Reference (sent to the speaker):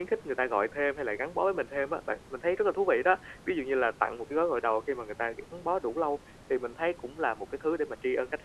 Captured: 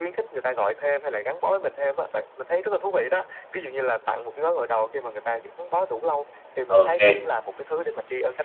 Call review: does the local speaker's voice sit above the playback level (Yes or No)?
Yes